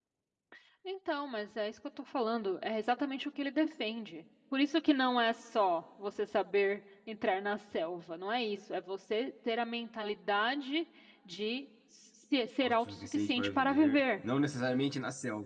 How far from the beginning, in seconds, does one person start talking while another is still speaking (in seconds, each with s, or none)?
12.6 s